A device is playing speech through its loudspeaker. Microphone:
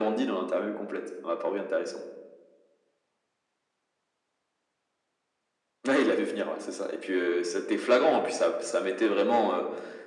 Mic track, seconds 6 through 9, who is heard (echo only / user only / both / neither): echo only